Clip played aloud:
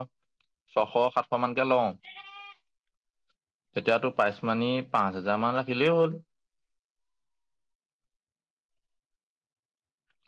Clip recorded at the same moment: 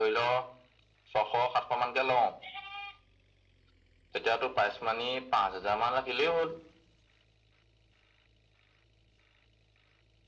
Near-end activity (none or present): none